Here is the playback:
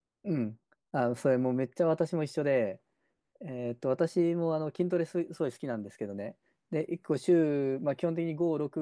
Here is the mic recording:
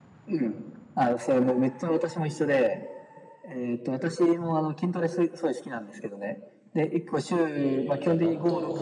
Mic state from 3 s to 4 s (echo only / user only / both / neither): echo only